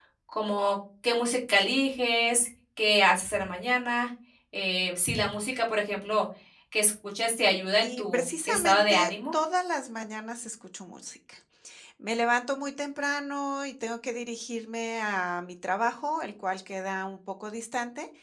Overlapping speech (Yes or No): Yes